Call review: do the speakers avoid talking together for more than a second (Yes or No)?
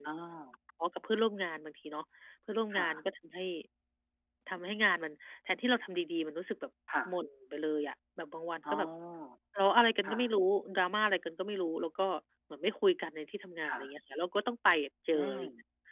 Yes